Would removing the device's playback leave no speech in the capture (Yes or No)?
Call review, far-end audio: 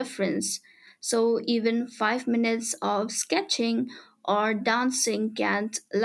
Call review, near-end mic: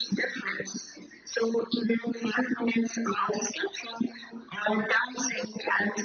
Yes